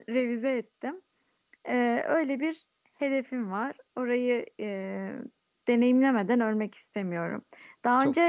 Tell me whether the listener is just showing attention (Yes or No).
Yes